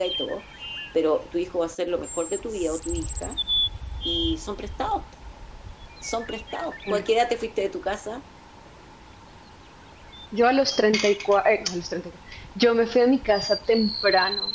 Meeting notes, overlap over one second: none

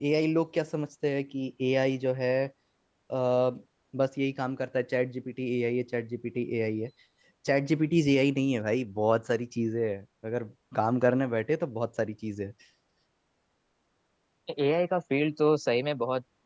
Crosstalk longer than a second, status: none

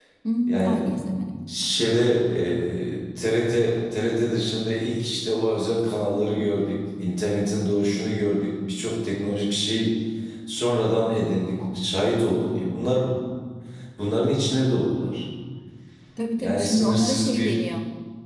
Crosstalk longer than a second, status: present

